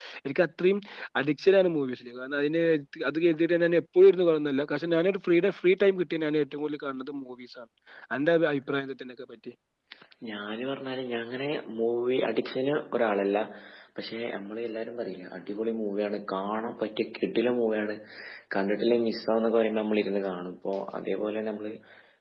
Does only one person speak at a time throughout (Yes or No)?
Yes